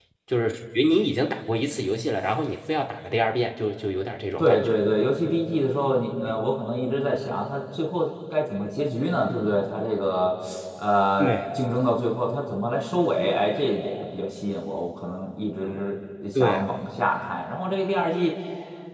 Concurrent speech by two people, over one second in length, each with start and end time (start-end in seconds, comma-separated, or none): none